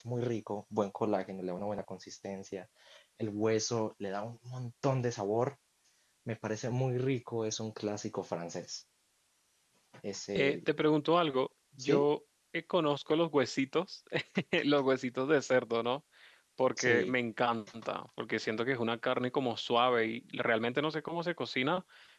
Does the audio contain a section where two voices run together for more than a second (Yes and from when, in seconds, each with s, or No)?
No